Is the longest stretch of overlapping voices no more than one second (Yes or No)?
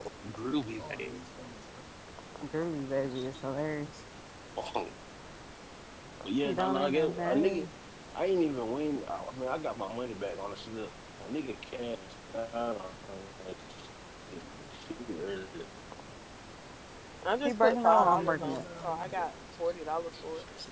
No